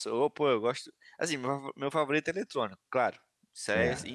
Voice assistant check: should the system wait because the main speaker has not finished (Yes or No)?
Yes